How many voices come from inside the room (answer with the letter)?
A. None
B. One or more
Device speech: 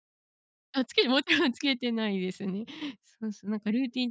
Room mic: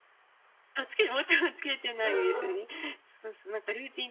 B